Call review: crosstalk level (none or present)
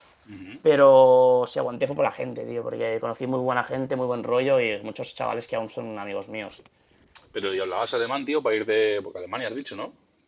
none